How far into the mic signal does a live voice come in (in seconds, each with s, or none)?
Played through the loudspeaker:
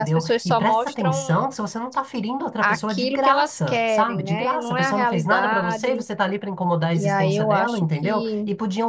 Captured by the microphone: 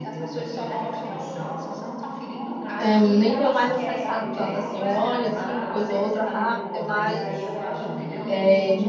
2.8 s